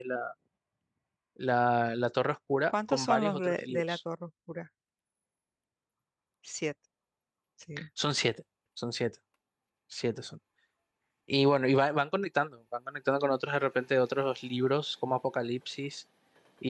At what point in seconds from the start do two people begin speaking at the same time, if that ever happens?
2.7 s

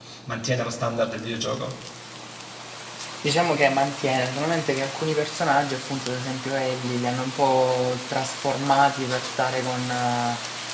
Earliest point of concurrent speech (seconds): none

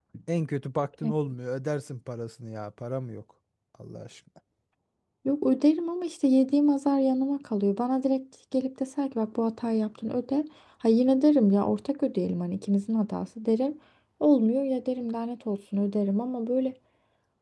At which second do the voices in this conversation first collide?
none

